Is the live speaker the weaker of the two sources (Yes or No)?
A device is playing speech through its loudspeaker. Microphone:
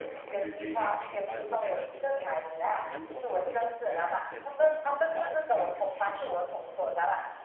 Yes